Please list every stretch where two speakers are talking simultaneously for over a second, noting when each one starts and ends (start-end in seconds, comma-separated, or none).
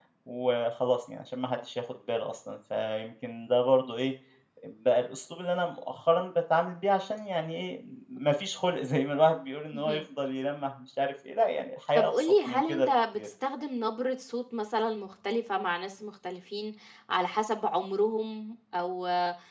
12.0-13.3